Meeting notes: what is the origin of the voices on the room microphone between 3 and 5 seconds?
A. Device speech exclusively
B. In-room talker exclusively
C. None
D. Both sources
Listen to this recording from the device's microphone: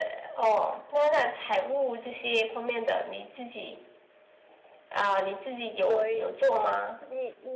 A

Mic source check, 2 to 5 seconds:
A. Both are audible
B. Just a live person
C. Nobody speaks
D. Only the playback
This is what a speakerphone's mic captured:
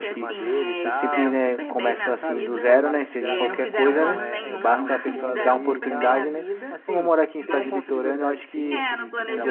A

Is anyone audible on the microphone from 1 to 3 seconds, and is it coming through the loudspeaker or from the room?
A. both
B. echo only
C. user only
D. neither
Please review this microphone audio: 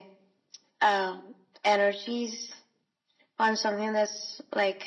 B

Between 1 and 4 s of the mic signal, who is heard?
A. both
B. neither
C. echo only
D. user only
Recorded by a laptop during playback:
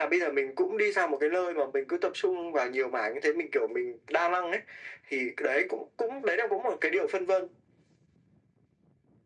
C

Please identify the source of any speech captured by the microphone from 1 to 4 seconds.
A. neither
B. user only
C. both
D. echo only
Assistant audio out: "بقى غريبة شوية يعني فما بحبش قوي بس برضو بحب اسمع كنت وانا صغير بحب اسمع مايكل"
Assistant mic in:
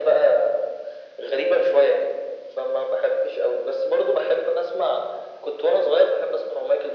D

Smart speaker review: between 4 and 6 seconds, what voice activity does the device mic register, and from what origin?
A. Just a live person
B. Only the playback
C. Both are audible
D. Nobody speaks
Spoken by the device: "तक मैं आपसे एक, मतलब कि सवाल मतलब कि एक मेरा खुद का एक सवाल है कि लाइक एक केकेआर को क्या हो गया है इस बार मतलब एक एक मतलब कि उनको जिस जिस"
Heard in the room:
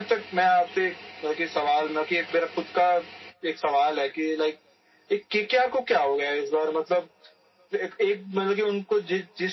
B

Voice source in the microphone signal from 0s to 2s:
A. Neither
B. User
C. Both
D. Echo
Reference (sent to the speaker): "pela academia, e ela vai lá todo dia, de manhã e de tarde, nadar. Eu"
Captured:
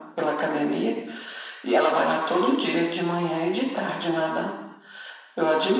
D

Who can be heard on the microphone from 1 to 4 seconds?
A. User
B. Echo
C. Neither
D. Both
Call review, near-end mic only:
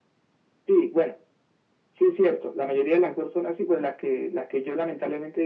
B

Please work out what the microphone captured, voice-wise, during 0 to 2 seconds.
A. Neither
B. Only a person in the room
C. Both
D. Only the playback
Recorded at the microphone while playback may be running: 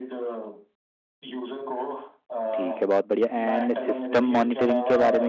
D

